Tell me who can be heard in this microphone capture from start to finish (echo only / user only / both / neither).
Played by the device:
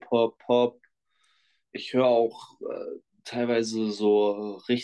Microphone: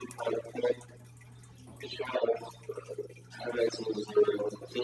echo only